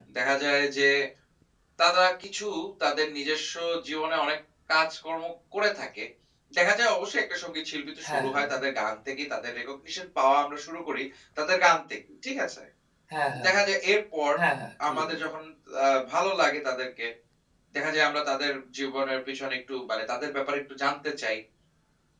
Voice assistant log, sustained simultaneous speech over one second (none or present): none